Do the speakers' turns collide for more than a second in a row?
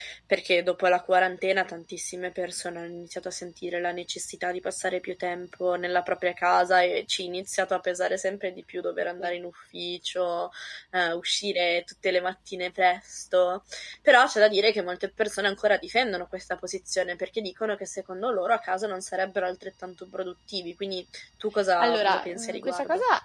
Yes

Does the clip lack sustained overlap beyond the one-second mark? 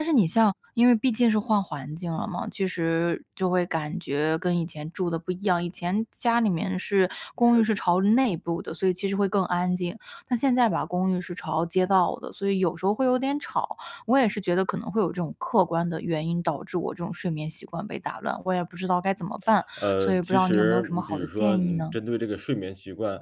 No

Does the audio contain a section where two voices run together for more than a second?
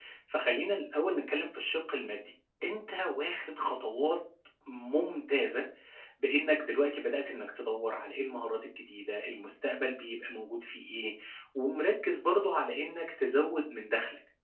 No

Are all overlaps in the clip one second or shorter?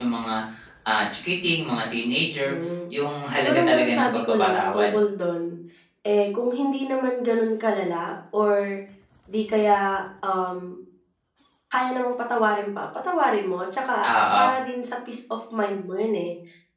No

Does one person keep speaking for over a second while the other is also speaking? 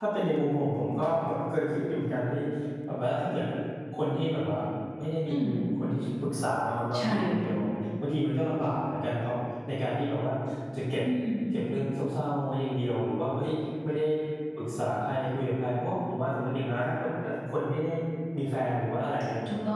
No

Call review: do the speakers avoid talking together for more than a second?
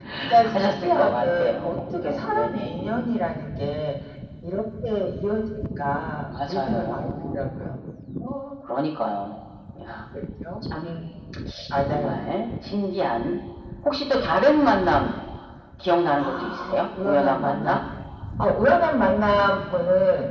No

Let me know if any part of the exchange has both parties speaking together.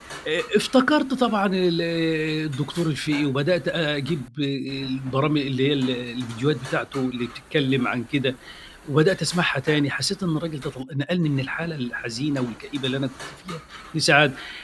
No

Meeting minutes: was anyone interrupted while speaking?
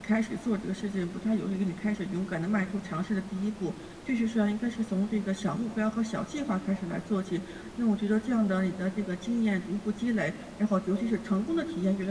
No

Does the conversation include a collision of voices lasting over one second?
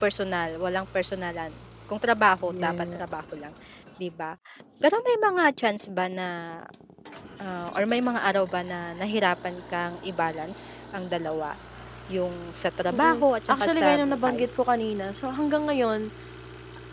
Yes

